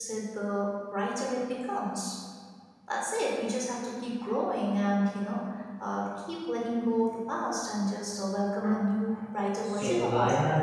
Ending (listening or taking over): taking over